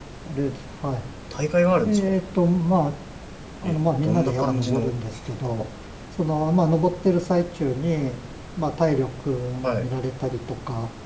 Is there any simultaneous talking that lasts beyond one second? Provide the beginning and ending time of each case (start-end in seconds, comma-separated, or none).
3.6-4.9